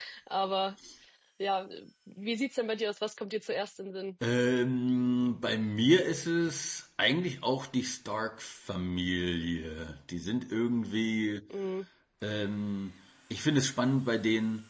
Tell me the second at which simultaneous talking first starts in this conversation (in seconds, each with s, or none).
none